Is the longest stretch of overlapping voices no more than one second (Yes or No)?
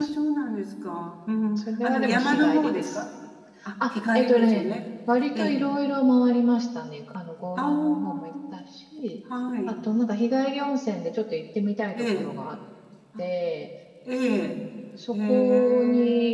No